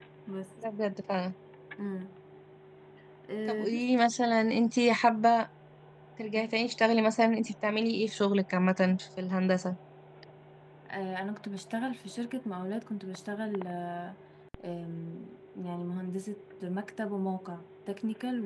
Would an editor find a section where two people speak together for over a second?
No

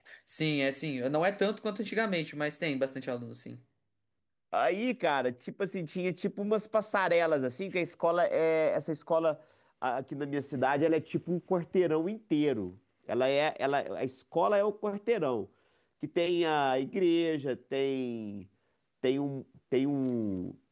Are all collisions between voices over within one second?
Yes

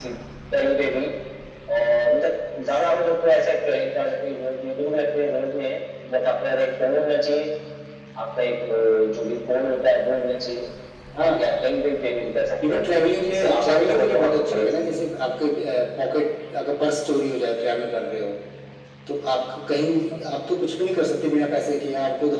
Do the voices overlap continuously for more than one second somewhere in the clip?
Yes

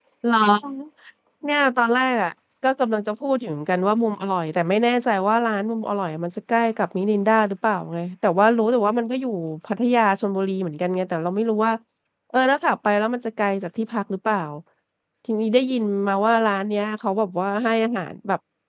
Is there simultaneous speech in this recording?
No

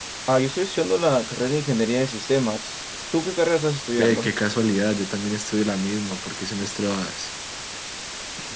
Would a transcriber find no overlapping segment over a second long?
Yes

